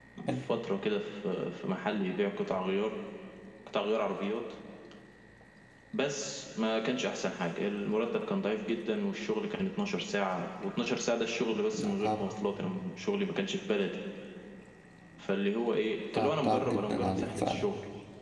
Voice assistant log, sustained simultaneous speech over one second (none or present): present